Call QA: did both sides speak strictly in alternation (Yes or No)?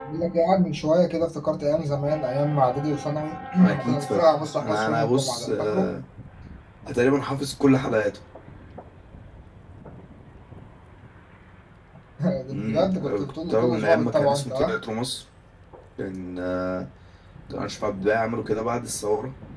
No